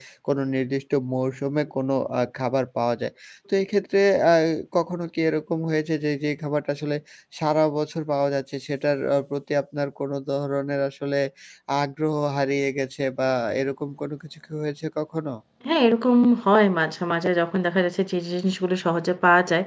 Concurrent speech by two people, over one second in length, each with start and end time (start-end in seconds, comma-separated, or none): none